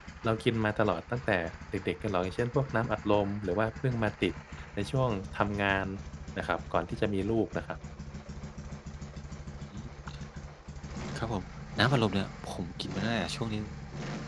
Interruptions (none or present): none